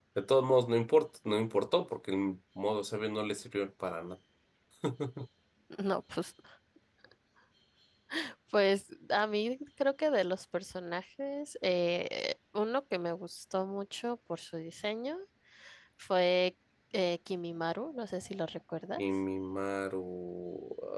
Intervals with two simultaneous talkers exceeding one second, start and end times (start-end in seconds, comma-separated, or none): none